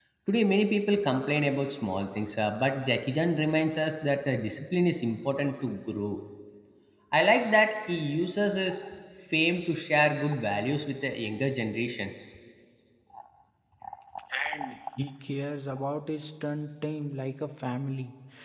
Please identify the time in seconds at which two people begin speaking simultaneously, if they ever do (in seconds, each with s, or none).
none